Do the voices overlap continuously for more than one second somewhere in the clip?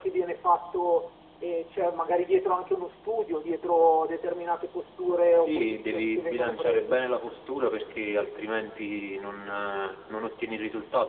Yes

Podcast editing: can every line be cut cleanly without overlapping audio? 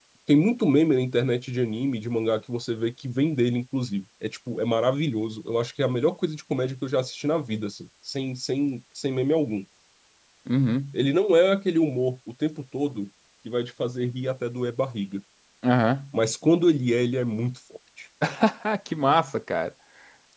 Yes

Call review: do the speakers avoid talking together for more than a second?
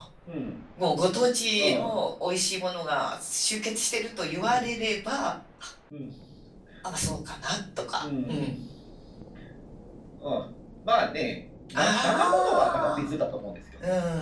No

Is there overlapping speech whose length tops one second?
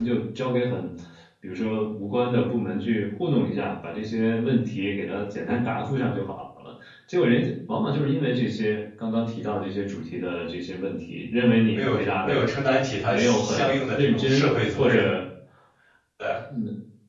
Yes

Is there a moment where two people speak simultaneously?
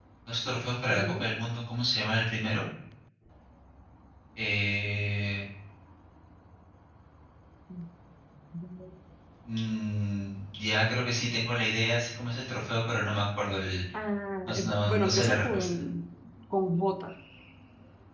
Yes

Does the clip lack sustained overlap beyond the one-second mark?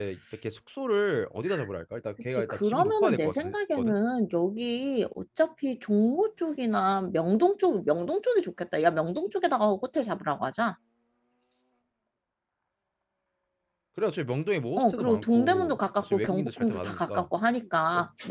No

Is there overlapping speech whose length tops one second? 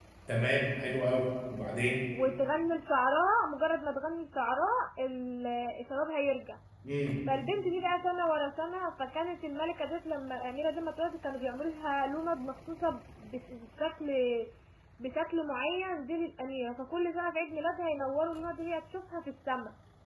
No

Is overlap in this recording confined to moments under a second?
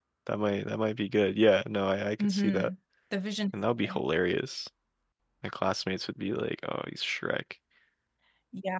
Yes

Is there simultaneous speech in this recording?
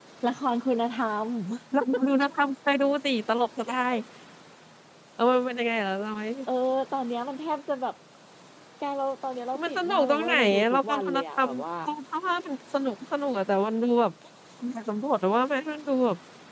Yes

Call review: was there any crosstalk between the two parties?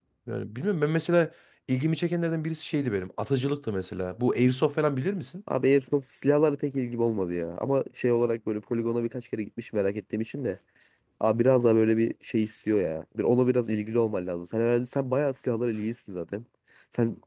No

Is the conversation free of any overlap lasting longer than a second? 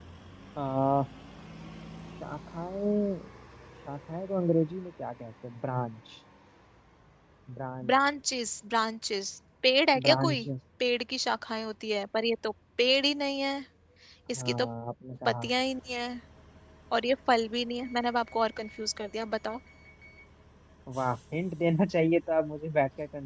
Yes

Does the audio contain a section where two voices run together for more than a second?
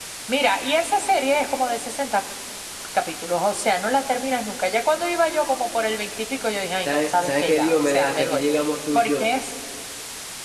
Yes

